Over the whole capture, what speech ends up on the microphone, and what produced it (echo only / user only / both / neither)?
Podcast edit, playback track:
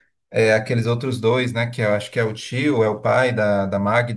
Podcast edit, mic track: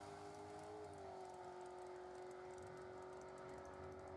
neither